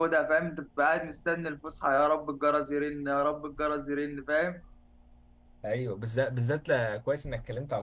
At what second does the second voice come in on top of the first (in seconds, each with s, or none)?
none